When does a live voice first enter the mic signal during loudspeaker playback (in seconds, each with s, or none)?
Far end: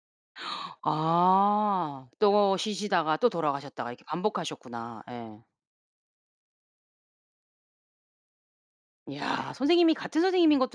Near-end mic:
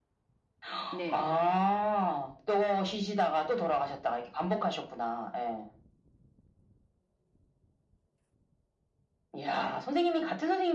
0.9 s